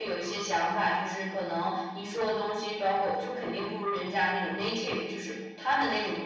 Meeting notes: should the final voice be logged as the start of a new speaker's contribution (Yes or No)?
No